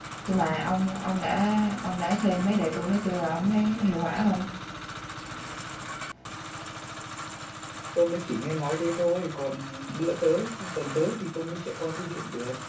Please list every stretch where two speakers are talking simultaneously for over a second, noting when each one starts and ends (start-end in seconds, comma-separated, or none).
none